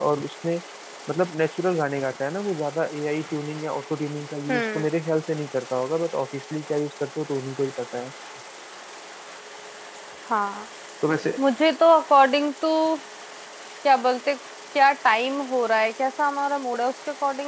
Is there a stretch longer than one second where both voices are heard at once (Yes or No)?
No